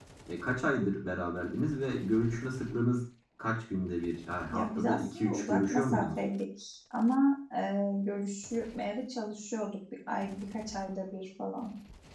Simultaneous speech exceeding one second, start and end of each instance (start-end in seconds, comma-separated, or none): 4.5-6.1